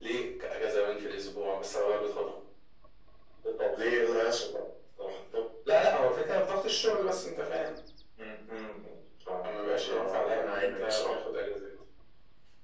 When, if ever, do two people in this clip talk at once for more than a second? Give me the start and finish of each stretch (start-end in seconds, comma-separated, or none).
9.4-11.2